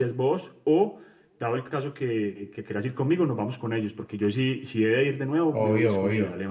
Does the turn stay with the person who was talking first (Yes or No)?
No